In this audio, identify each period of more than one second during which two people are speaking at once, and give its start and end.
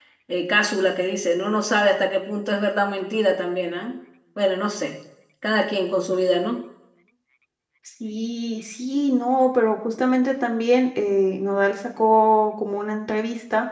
none

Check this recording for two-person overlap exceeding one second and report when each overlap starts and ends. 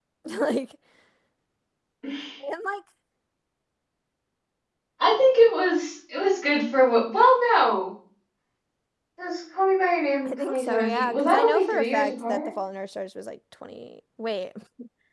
10.2-12.5

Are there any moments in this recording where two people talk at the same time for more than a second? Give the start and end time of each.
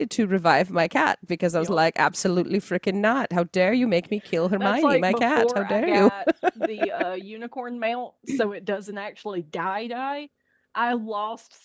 4.6-6.1

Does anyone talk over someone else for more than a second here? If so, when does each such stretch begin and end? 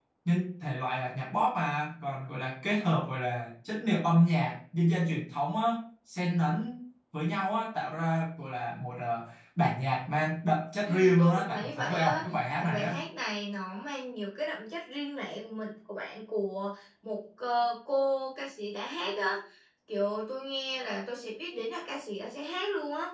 10.8-12.2

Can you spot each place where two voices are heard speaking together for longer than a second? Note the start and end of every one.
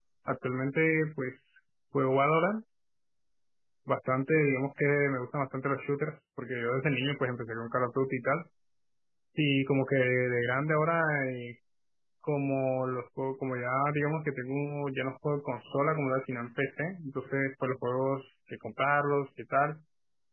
none

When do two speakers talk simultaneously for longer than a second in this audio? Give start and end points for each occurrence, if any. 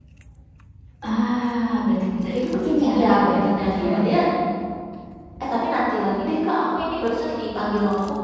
2.9-4.1

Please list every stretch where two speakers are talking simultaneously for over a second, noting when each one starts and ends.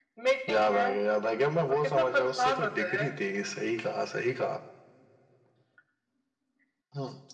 1.7-3.0

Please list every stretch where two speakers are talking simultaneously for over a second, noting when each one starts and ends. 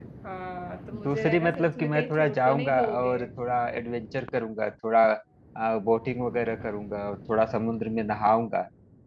1.1-3.2

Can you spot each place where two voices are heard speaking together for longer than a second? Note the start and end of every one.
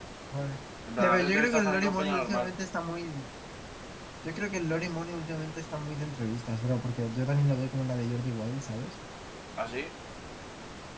1.0-2.5

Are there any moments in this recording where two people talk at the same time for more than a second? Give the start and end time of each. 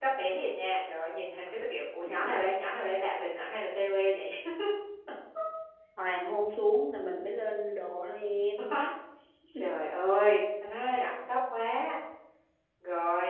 none

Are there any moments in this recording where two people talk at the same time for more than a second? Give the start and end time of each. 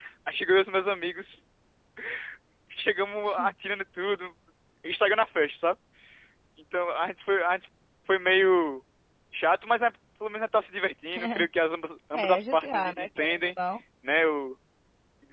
12.1-13.5

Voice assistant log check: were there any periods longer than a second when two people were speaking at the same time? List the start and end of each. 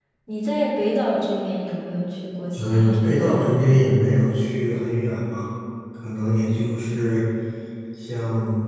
2.6-3.8

